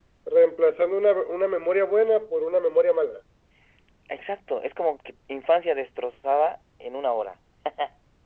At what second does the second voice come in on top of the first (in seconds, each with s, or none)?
none